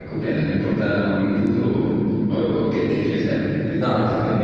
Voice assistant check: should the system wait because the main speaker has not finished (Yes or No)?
No